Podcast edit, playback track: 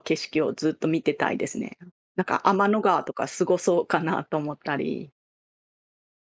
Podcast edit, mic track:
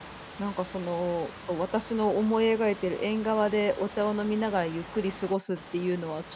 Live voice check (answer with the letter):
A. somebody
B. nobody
A